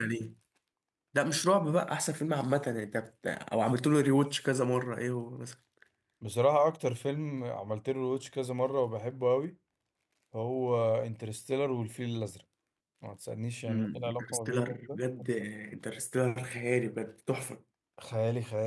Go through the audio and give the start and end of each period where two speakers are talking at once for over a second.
13.7-15.0

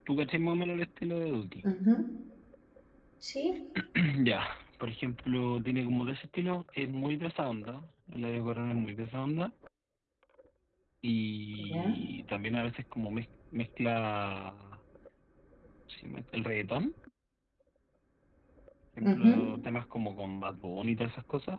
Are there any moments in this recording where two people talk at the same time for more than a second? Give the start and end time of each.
none

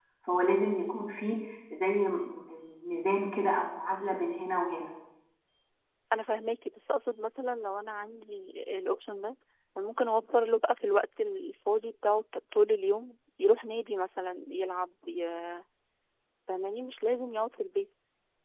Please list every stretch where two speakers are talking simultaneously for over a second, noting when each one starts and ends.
none

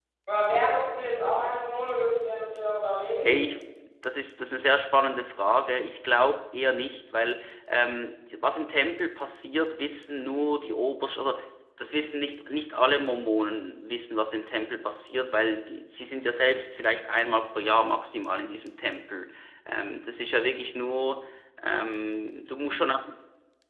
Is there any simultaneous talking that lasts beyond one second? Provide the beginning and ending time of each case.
none

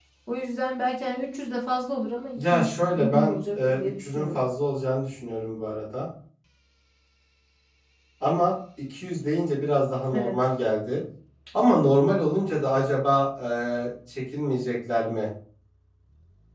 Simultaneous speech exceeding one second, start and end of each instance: 2.4-4.4

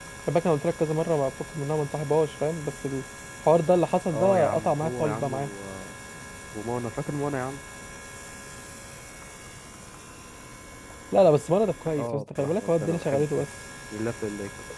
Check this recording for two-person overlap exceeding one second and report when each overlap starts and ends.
4.1-5.3, 12.0-13.5

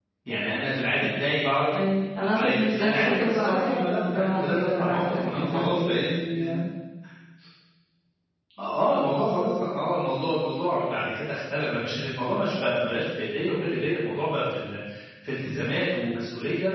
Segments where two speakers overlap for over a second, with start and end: 2.2-6.0

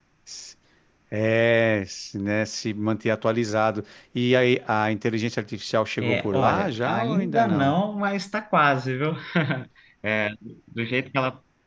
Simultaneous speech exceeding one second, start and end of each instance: 6.0-7.7

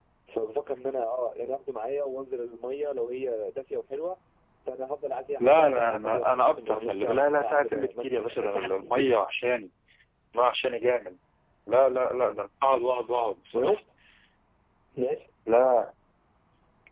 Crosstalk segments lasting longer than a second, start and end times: 5.4-9.1

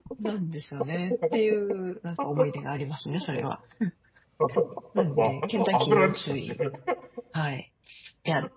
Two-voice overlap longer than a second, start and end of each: 5.2-6.6

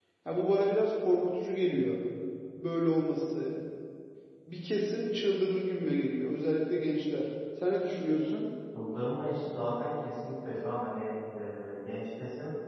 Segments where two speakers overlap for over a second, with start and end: none

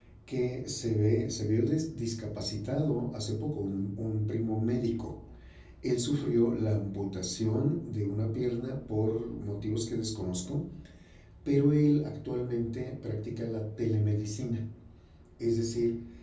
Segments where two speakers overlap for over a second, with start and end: none

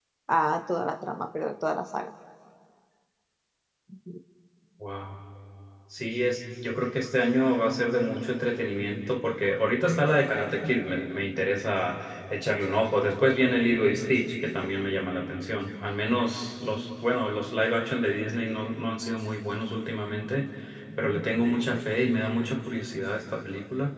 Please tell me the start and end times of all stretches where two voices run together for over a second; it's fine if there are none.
none

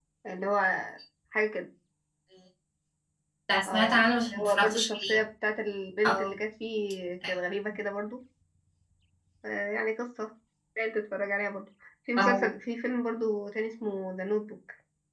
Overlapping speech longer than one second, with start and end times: 3.7-5.2

